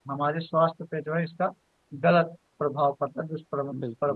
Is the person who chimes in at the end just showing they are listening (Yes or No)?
No